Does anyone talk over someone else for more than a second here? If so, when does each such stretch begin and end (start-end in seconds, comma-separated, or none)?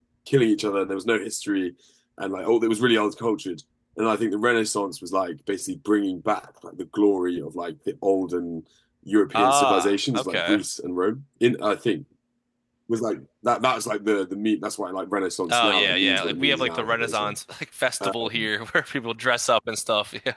9.3-10.6, 15.5-17.4